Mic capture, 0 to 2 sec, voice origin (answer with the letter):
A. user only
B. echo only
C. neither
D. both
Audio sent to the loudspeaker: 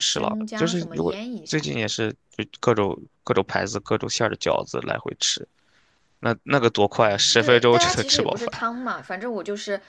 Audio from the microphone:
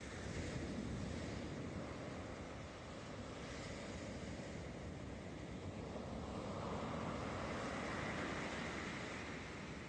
C